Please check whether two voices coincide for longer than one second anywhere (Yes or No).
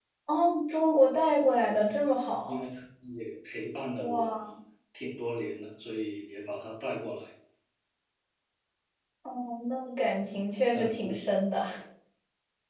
No